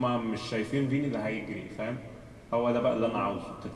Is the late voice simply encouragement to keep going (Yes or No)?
Yes